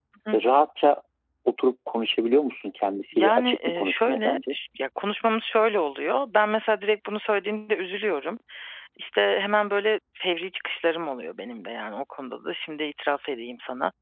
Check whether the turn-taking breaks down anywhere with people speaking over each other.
Yes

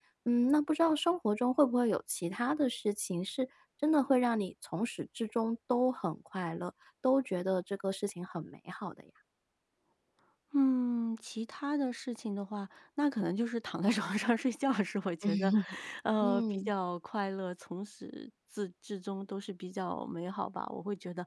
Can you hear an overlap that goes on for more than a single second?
No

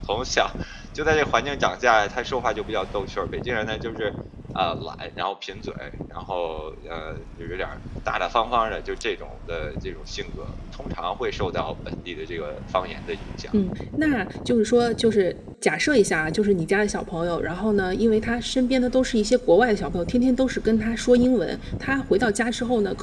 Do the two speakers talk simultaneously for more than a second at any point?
No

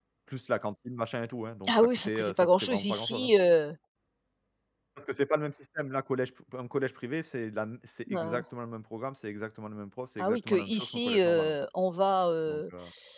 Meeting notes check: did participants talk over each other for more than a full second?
Yes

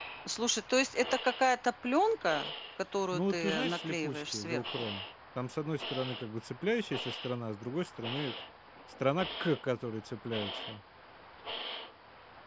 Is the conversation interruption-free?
No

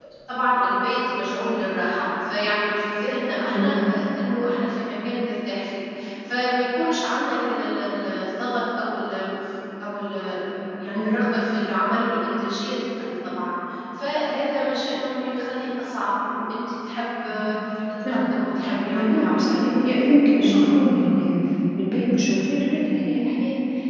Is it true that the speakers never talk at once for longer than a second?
No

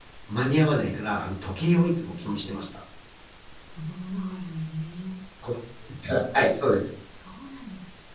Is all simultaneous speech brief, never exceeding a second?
Yes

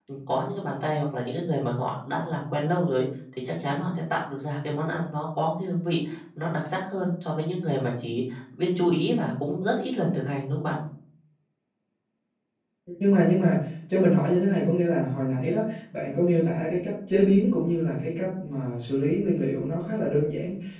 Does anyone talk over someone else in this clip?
No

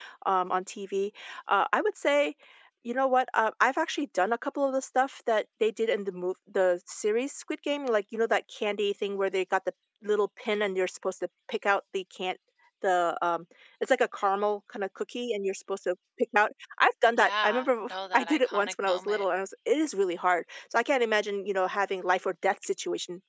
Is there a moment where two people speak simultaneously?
Yes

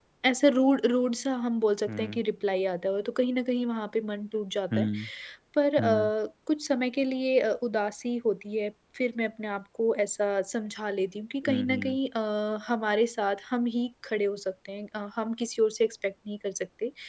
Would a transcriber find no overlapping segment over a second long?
Yes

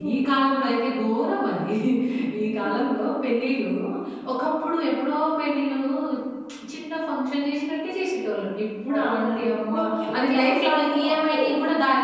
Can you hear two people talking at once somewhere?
Yes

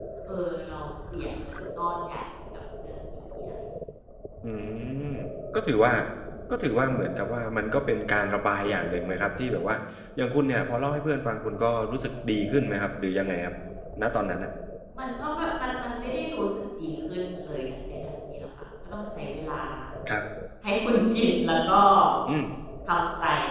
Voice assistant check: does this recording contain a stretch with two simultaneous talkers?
No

